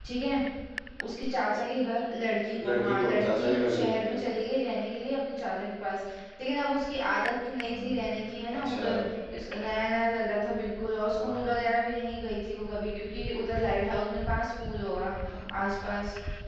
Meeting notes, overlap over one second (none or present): present